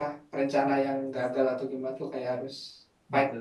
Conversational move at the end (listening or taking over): taking over